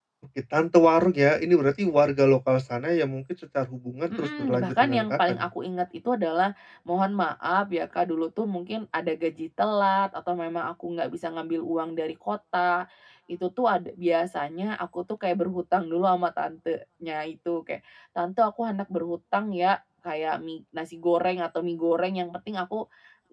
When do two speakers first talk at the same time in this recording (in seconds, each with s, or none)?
4.1 s